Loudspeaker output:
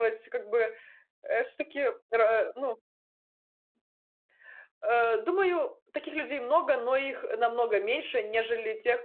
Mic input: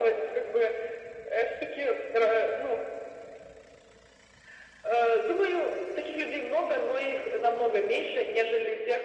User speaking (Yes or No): No